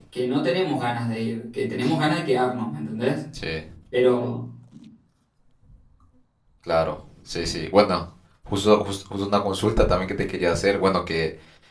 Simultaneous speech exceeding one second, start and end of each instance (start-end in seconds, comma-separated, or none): none